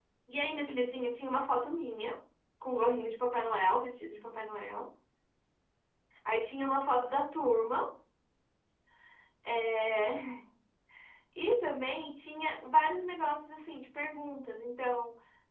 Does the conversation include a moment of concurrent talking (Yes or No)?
No